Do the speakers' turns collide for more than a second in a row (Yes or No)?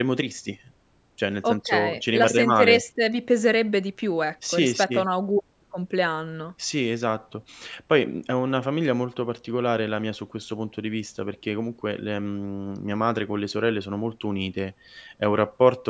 Yes